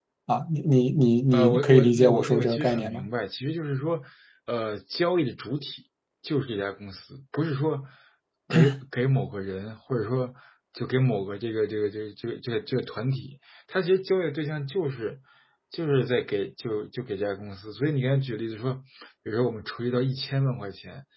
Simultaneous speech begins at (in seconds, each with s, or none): 1.3 s